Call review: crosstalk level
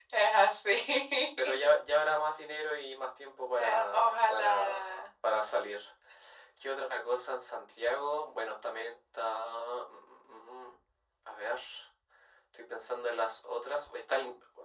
present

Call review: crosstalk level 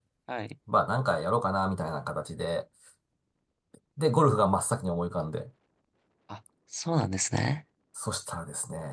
none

